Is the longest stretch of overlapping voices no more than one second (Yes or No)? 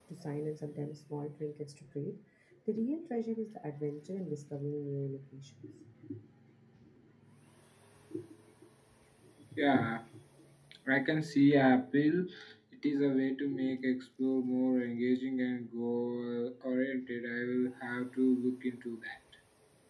Yes